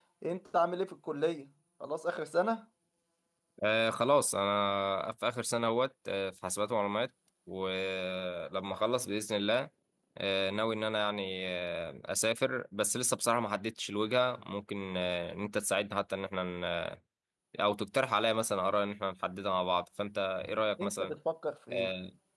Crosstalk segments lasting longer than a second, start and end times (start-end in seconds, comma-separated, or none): none